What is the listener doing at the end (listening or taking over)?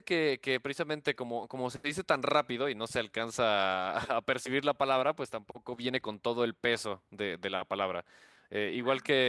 listening